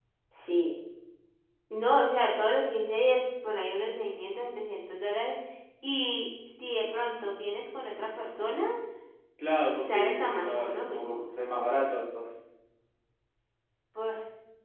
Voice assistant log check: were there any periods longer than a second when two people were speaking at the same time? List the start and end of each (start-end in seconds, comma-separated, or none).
9.9-11.2